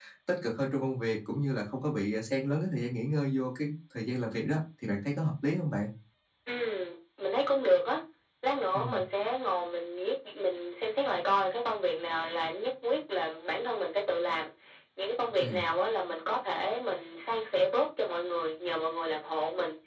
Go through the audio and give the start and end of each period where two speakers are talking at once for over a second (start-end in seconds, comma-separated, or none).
none